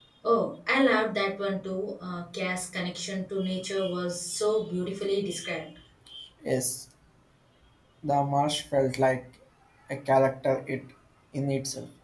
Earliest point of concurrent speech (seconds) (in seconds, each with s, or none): none